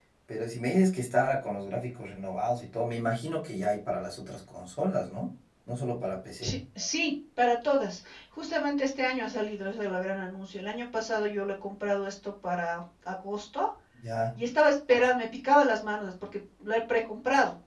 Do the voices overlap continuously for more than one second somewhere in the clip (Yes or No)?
No